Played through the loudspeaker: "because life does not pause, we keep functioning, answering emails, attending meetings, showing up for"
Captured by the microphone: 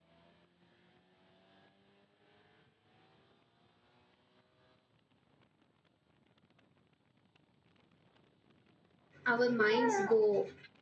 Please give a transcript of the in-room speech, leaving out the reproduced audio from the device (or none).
our minds go